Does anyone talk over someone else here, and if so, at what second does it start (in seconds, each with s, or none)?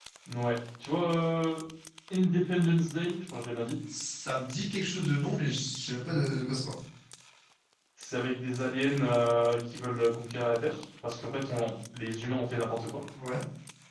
none